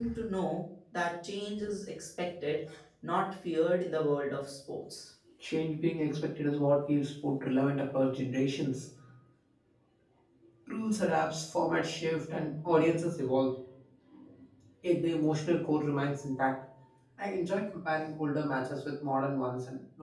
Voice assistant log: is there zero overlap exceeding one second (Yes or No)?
Yes